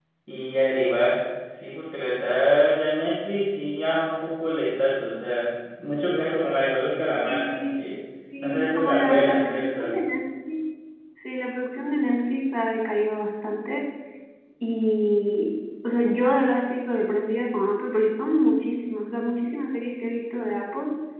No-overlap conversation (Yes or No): No